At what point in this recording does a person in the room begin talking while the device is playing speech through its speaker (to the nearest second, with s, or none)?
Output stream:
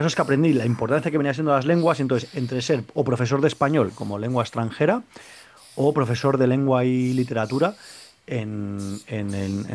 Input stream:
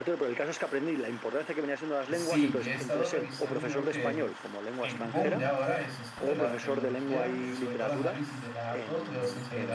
2 s